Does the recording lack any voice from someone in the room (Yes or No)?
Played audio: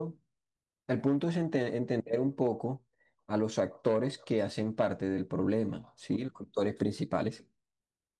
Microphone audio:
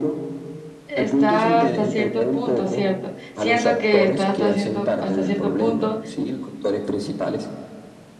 No